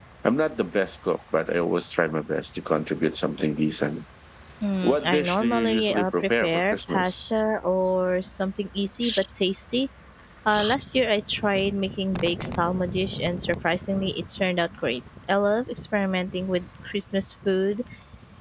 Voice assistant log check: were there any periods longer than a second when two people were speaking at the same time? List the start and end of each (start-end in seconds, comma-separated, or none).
4.8-7.3